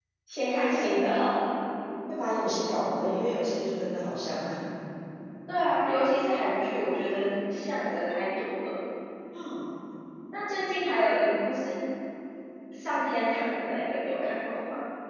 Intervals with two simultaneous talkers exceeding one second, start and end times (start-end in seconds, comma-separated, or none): none